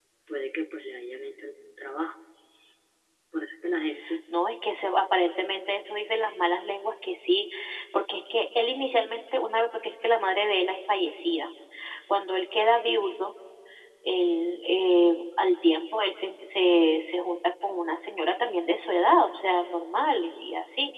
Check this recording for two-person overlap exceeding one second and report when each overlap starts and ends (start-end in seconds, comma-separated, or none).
none